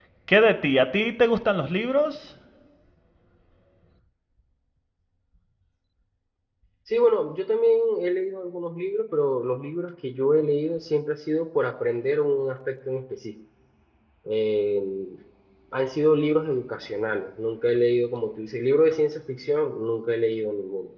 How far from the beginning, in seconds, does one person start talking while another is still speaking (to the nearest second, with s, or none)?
none